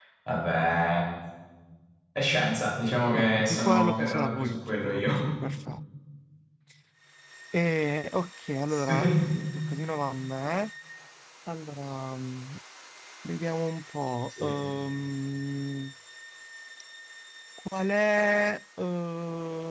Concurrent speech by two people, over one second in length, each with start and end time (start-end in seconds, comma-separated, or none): 3.1-5.2